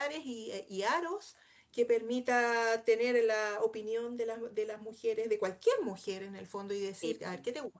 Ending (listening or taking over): listening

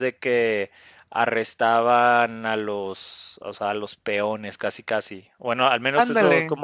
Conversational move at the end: listening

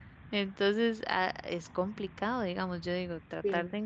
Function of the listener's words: listening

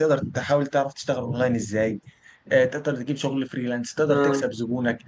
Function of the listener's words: listening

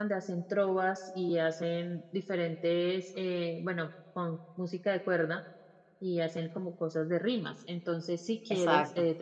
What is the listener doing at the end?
listening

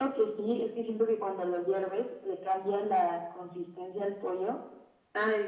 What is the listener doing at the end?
listening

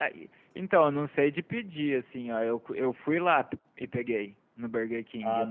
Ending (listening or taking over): listening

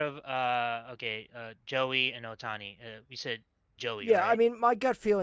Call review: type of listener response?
taking over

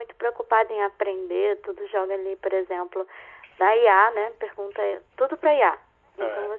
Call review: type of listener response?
listening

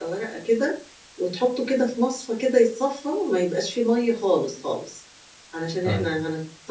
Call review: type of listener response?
listening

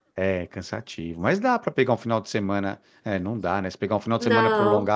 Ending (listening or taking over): listening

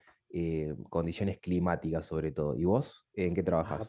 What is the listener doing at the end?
taking over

